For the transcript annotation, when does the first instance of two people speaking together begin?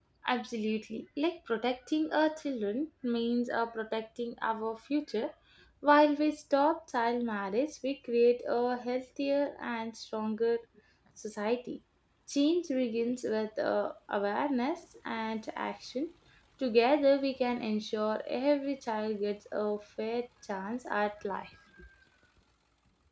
none

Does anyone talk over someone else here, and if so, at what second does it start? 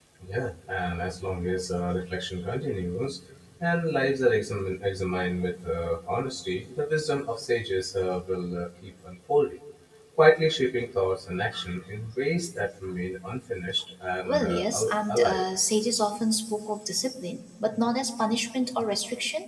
14.2 s

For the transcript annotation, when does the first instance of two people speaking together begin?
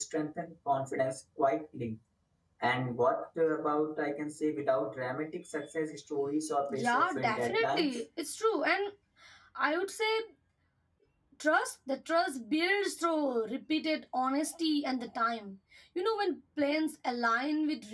6.7 s

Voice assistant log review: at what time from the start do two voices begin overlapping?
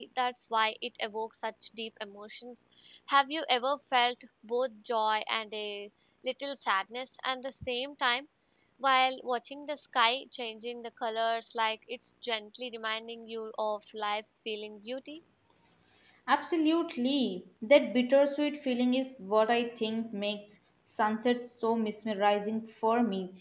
none

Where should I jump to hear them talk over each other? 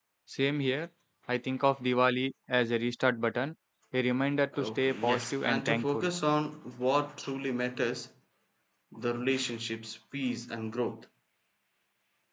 4.5 s

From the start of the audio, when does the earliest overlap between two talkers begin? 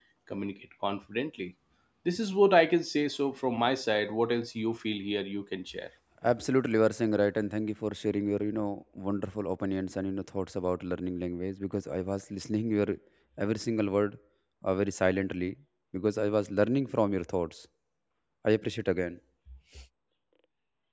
none

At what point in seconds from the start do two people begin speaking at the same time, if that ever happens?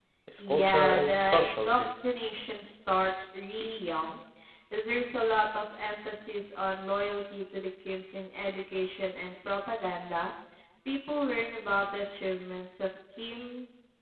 0.6 s

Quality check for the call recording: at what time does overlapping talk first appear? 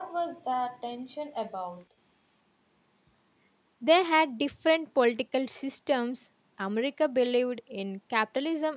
none

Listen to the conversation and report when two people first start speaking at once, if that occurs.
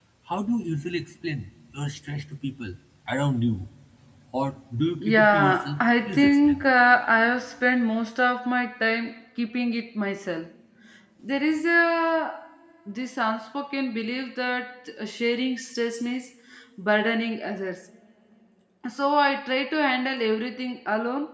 5.0 s

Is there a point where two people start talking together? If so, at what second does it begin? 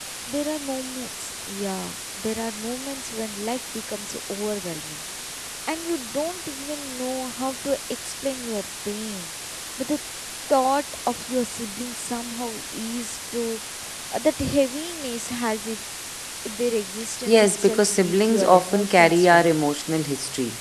17.3 s

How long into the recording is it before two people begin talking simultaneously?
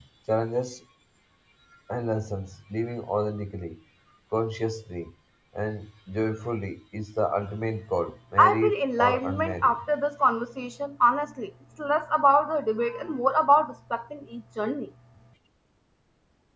8.4 s

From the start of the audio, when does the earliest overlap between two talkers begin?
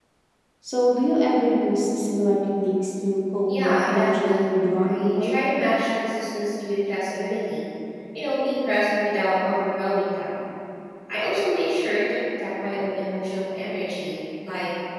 3.5 s

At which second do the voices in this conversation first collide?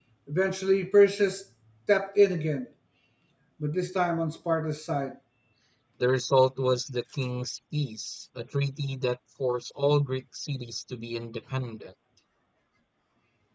none

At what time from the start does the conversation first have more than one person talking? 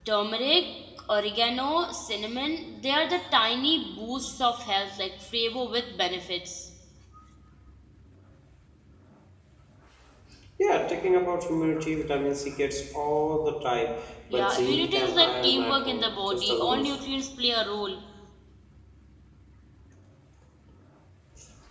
14.3 s

